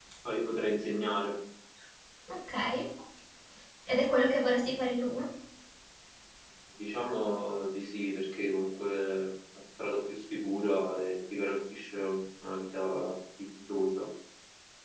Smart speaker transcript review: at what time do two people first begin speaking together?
none

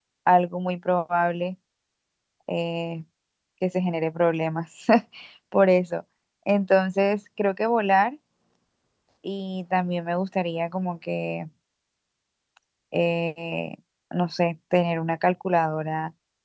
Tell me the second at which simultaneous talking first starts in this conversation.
none

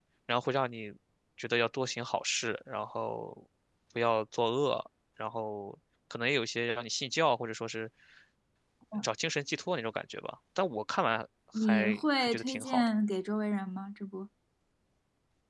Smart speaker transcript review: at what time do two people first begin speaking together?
11.5 s

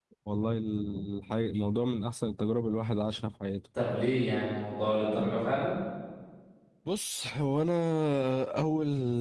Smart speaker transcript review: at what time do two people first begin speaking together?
none

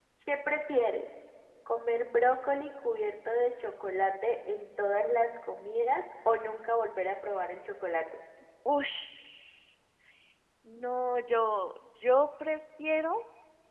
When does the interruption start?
none

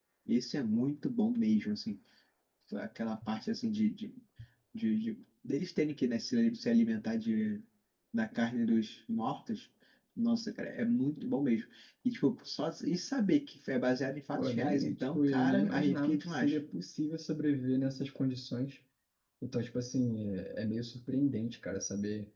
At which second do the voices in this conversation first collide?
14.3 s

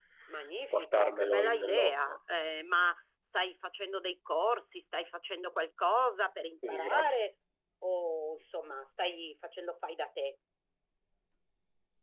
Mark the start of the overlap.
0.7 s

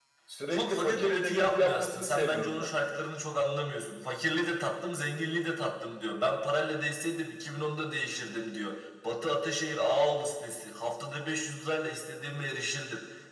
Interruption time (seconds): 0.5 s

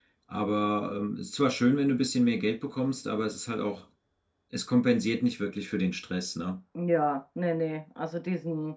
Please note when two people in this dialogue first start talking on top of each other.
none

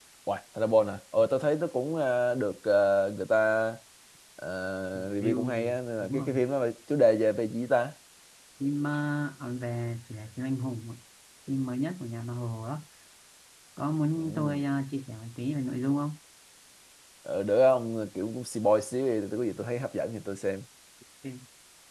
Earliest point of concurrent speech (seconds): 5.1 s

